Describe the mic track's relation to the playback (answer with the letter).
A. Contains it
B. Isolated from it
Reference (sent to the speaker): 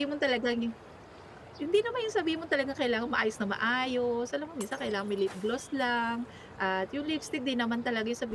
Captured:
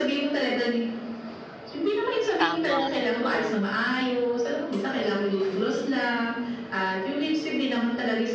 A